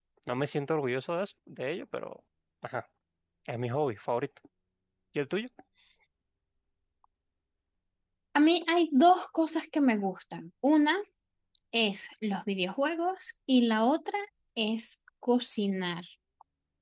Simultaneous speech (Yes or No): No